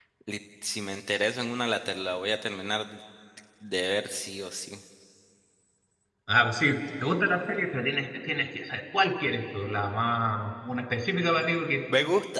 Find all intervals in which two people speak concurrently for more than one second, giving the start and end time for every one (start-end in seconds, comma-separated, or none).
none